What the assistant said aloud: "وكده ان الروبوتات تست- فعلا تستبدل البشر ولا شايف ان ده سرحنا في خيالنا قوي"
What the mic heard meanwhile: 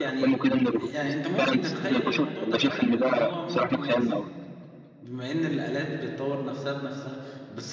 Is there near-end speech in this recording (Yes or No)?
Yes